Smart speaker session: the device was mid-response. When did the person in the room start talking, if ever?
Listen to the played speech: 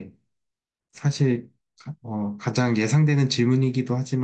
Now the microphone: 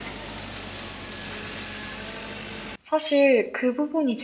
2.8 s

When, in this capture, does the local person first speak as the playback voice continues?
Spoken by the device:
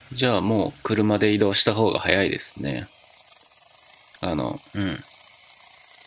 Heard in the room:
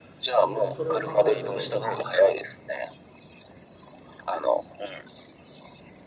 0.4 s

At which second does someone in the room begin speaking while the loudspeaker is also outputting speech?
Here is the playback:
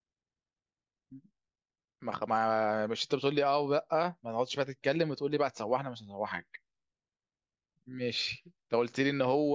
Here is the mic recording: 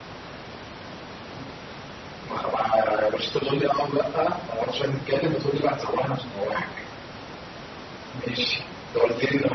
none

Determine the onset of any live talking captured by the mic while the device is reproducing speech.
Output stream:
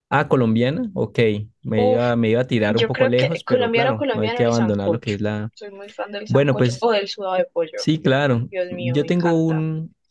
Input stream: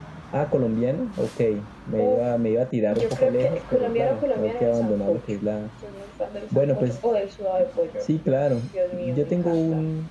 none

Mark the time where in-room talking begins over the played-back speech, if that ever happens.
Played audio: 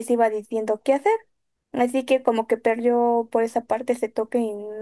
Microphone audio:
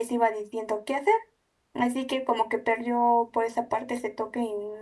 none

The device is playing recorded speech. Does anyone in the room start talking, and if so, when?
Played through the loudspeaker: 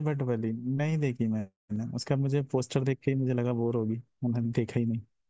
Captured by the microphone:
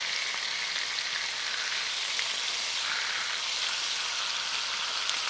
none

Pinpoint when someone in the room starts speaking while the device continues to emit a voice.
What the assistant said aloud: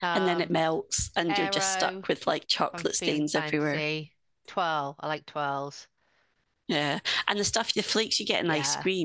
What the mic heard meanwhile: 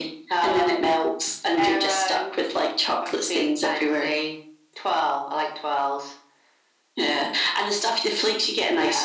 none

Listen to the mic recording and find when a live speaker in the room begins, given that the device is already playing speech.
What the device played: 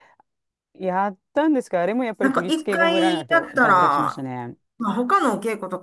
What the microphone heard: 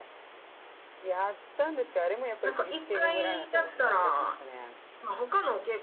none

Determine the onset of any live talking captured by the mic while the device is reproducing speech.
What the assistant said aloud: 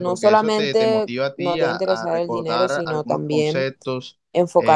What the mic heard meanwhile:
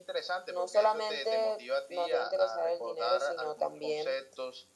none

